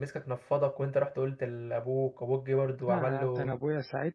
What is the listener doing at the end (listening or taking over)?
taking over